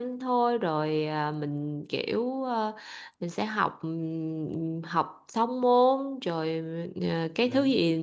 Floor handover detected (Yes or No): No